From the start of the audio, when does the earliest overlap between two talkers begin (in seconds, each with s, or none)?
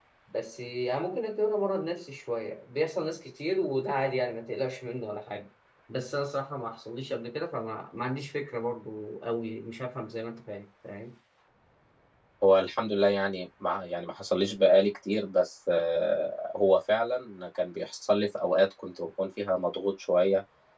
none